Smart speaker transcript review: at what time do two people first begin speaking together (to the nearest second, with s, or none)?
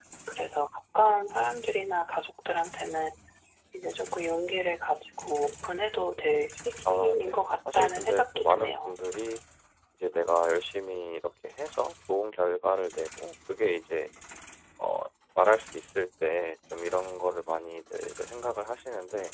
7 s